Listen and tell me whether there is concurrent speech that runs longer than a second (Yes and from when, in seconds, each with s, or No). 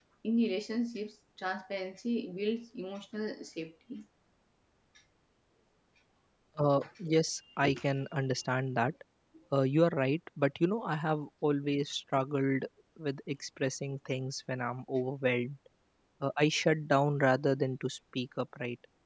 No